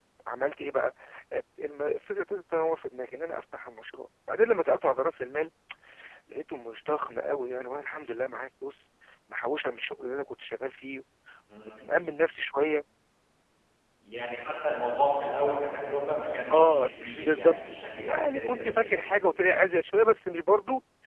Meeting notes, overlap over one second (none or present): present